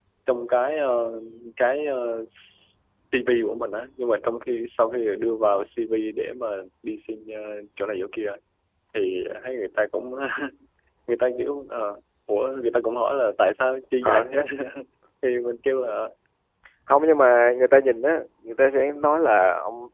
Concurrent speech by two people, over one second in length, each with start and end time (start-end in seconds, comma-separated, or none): none